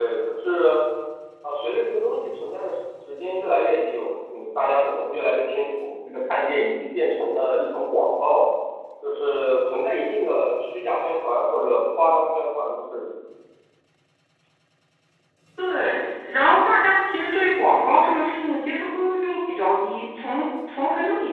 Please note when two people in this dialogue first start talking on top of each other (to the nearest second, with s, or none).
none